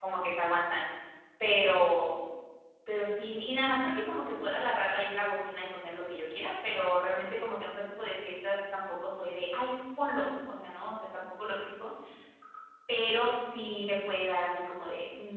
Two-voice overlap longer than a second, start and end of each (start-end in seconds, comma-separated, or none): none